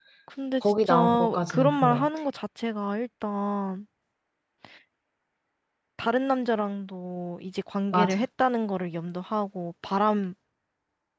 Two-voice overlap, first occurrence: 0.6 s

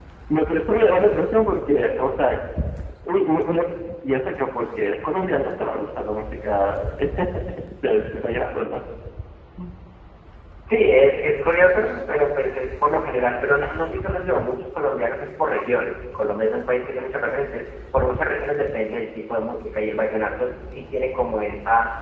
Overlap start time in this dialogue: none

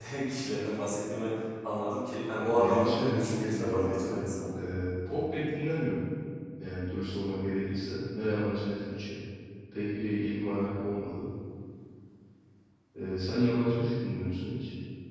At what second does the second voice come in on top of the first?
2.4 s

